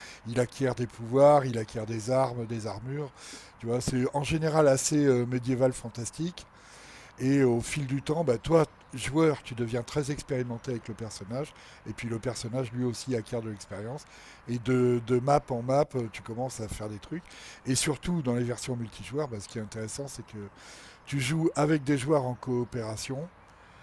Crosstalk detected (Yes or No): No